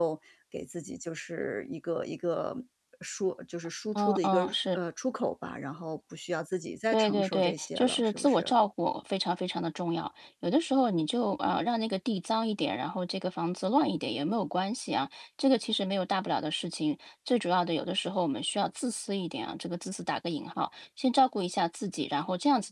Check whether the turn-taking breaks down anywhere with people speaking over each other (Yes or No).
Yes